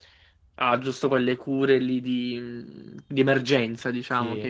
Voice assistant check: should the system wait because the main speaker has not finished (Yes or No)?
Yes